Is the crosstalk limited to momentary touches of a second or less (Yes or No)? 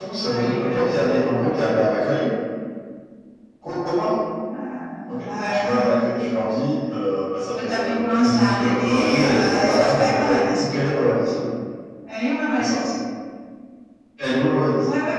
No